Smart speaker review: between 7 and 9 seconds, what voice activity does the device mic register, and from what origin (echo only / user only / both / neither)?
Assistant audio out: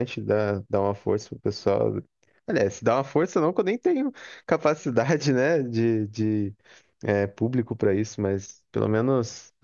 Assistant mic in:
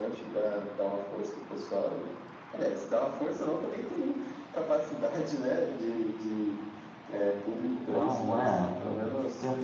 both